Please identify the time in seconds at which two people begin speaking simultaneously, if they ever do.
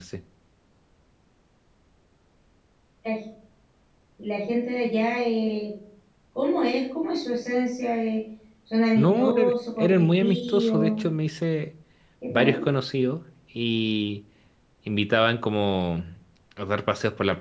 9.0 s

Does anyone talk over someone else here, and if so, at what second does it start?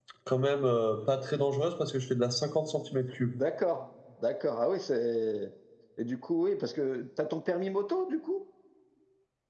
none

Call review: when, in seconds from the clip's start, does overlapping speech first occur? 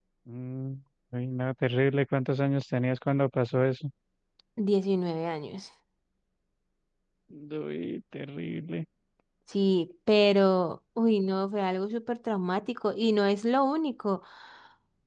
none

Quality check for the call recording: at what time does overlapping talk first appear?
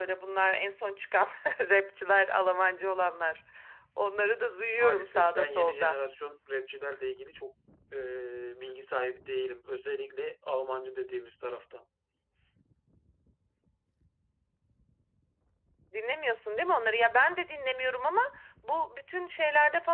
4.7 s

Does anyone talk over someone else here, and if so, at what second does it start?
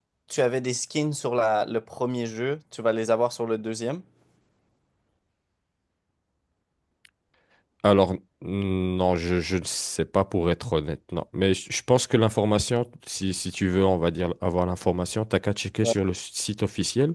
none

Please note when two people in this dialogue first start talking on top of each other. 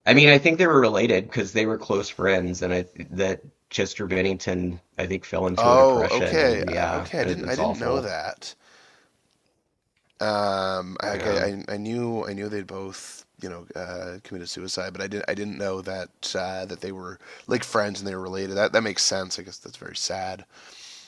5.6 s

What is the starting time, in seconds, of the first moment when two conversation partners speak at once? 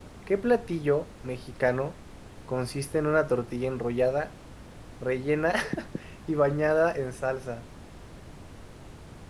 none

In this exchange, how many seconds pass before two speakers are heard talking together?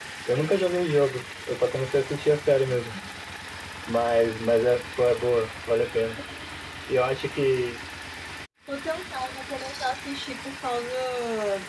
none

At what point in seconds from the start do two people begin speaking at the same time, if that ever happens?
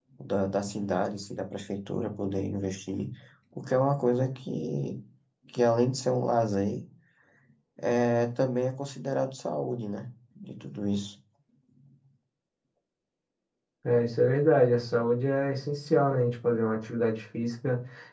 none

